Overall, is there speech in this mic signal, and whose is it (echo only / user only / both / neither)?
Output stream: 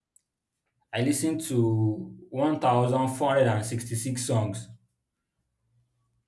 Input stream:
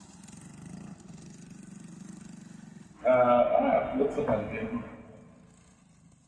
user only